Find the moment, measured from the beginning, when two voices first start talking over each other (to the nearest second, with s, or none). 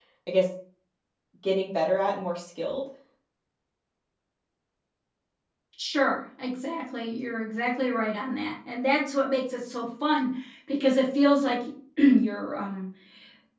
none